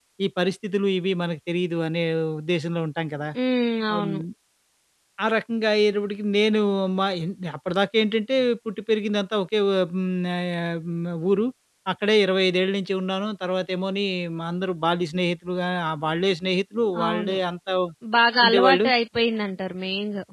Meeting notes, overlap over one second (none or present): none